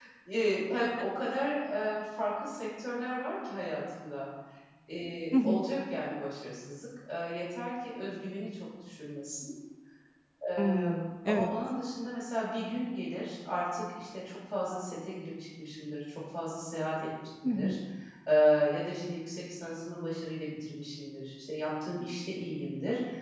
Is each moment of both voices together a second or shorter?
Yes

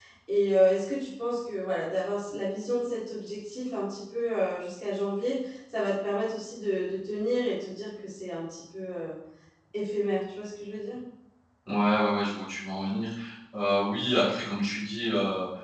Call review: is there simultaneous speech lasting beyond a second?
No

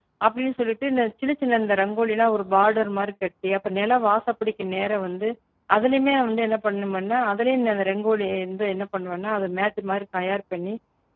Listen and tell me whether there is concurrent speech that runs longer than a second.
No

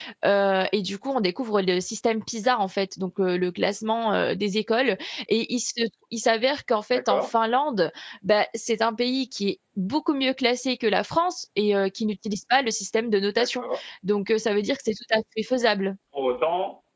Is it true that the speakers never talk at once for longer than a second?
Yes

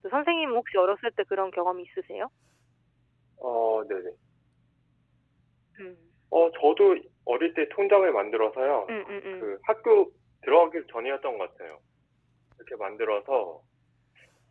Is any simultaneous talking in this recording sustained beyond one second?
No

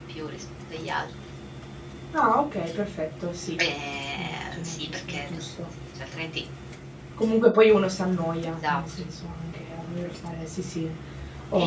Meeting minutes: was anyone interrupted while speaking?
Yes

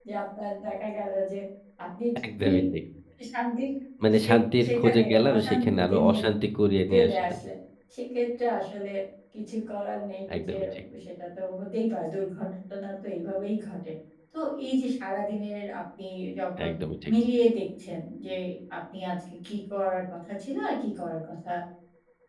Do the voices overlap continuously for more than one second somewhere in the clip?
Yes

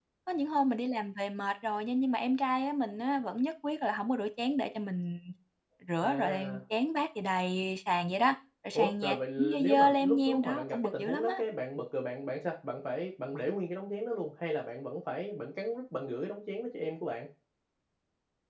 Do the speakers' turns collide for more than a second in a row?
Yes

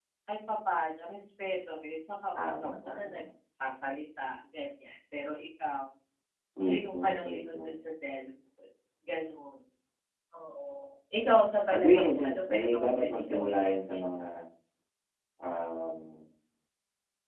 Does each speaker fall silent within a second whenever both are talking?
No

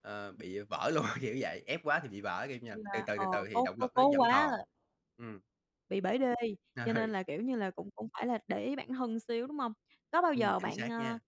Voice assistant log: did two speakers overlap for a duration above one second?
Yes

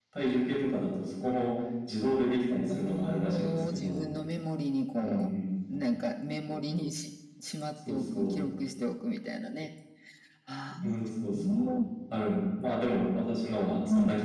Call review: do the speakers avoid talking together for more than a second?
No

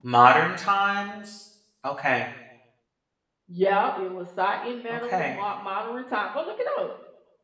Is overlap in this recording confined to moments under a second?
Yes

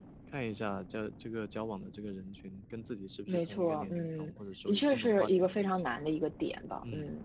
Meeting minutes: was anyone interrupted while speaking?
Yes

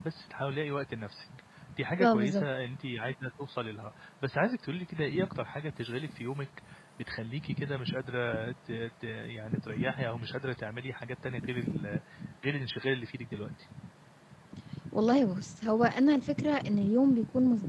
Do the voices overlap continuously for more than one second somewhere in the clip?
No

